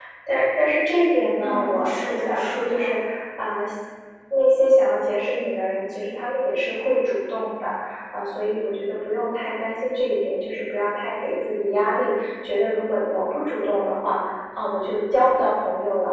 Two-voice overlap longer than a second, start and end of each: 1.4-2.9

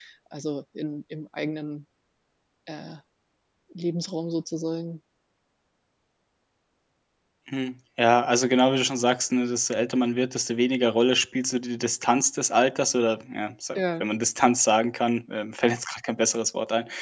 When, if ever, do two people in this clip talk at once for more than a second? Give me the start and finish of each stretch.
none

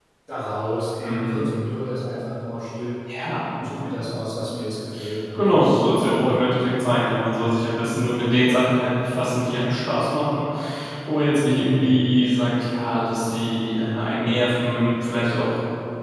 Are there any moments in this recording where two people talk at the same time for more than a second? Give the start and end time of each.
none

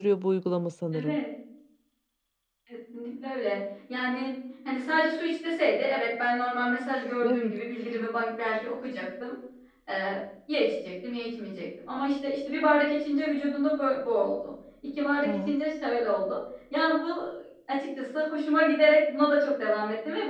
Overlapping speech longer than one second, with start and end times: none

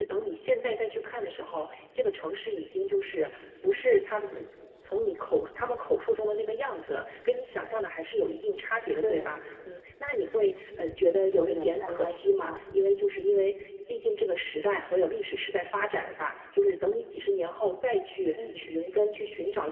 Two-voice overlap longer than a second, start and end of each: 11.4-12.6

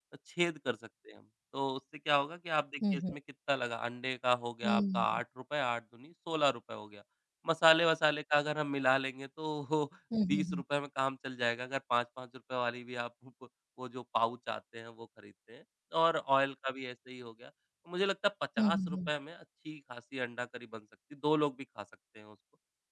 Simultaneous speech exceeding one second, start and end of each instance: none

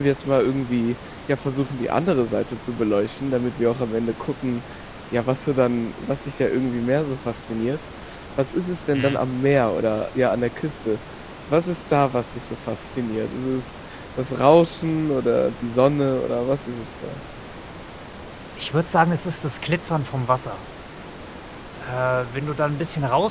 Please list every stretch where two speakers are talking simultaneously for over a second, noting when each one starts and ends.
none

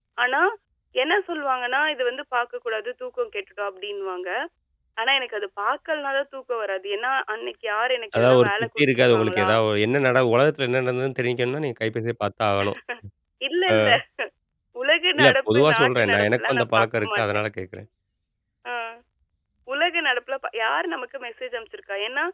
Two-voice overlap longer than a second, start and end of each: 8.2-9.5, 15.2-17.3

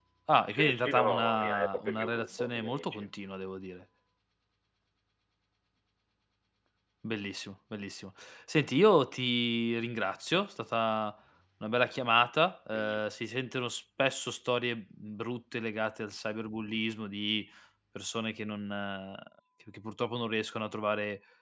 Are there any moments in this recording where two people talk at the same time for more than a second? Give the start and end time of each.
0.5-3.1

